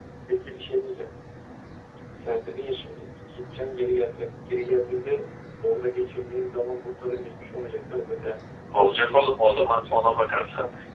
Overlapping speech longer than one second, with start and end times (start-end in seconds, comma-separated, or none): 8.8-10.2